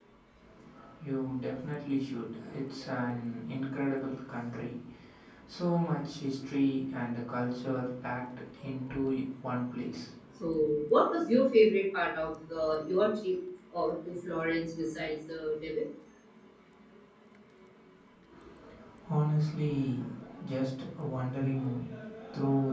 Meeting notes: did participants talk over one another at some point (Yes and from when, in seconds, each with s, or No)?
No